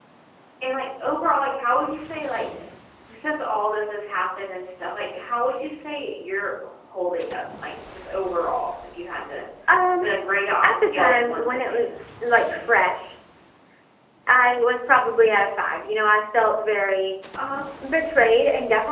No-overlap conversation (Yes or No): No